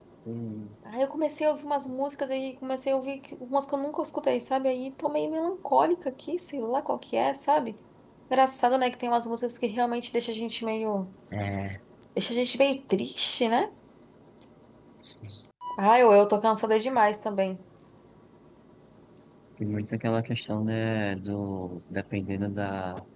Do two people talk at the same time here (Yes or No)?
No